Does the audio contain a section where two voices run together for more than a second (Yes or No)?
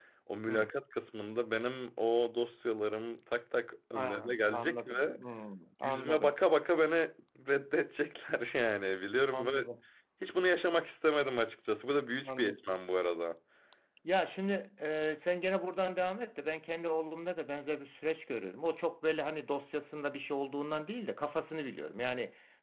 Yes